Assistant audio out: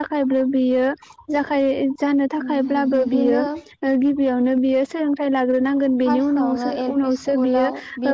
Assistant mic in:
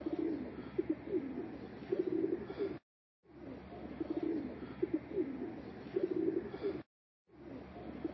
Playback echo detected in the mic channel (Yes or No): No